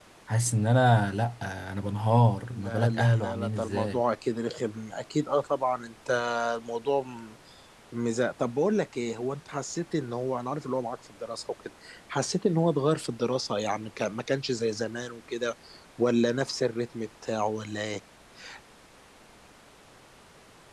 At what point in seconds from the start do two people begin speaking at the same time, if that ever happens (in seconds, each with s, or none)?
2.5 s